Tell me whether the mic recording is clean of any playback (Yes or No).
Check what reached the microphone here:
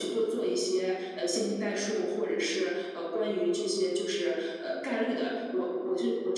No